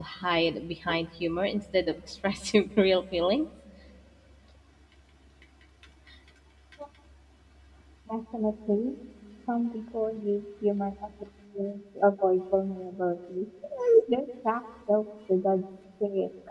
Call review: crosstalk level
none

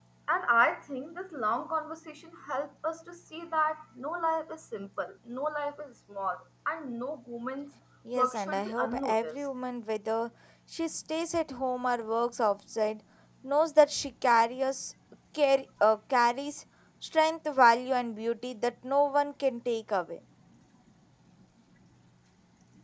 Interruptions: present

